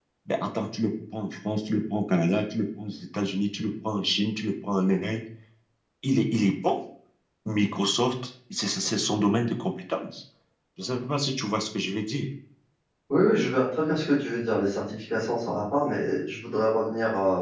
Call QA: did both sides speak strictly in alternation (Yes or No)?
Yes